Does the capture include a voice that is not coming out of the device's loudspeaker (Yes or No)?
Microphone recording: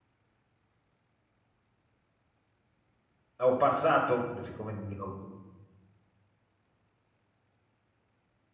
Yes